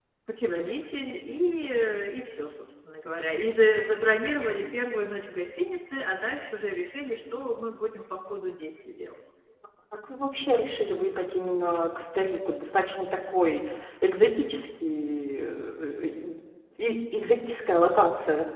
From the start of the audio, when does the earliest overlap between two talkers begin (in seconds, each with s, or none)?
none